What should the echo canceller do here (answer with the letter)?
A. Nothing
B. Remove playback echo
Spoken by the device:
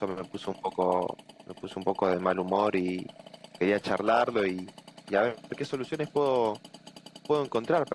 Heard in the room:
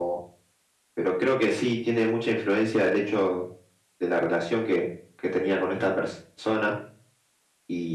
A